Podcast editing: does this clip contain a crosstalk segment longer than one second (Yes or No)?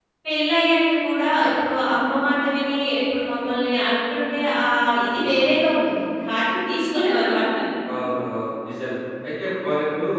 No